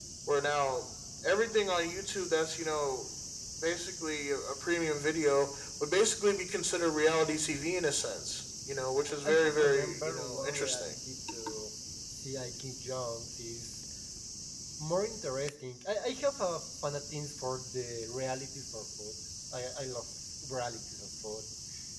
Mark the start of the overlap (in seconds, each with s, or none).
9.2 s